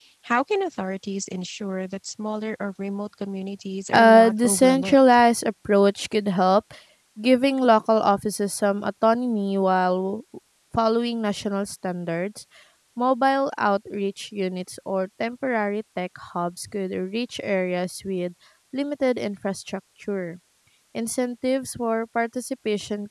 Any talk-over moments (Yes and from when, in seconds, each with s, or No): Yes, from 3.9 s